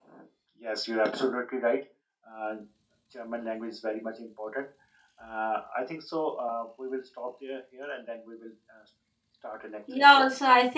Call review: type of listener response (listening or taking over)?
taking over